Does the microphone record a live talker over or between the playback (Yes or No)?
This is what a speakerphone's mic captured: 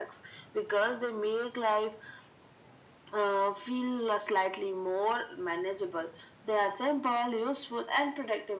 No